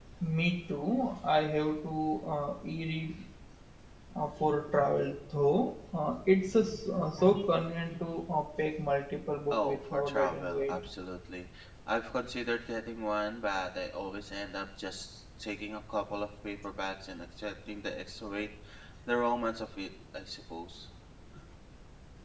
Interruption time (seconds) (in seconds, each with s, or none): 9.5 s